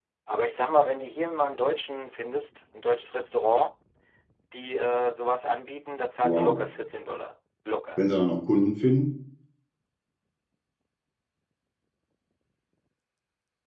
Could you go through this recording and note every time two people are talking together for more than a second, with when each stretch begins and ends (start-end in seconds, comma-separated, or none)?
none